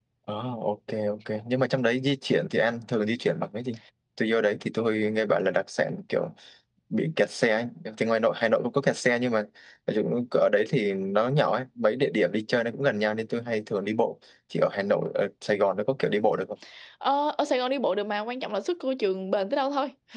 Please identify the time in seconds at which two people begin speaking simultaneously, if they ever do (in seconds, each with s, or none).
none